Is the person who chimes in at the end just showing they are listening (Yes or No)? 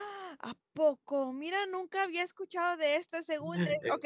No